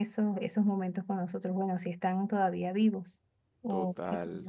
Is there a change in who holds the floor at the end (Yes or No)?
Yes